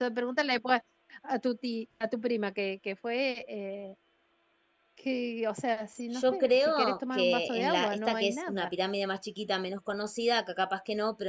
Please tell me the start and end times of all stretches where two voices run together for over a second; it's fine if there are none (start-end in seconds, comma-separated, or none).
6.1-8.7